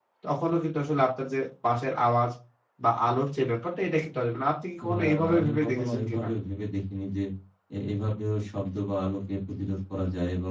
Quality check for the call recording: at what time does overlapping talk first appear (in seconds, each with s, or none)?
4.8 s